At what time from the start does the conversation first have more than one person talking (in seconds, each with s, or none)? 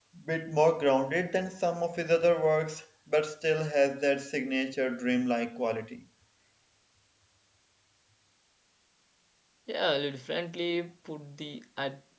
none